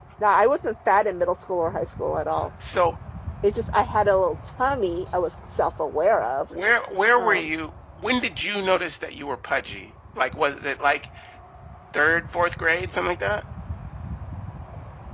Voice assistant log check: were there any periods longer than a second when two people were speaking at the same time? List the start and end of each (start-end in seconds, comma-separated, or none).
none